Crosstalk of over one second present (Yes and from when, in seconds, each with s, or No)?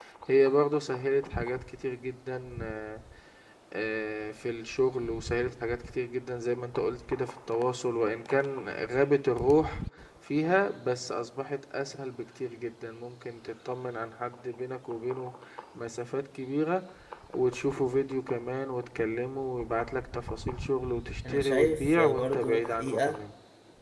Yes, from 21.2 s